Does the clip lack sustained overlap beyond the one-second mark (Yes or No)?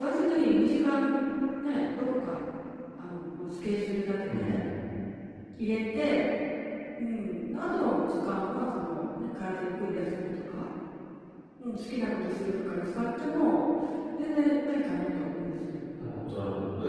Yes